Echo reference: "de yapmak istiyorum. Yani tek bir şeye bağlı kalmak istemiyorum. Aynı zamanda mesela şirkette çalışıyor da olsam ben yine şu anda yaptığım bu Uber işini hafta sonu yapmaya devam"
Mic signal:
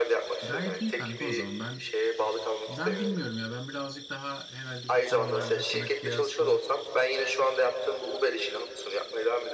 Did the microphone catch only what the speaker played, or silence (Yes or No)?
No